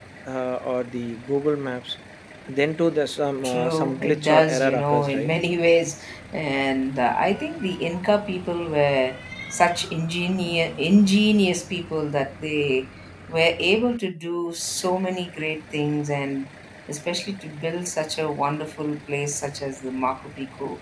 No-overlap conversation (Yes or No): No